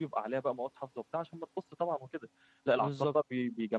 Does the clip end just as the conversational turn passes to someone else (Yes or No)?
No